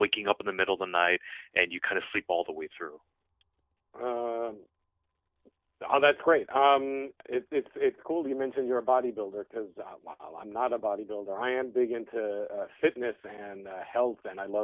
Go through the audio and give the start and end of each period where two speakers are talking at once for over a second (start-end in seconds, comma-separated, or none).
none